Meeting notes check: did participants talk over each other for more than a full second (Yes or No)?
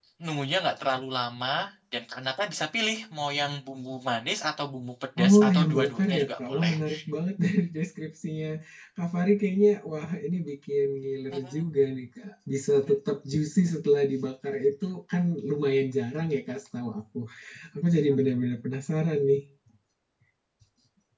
Yes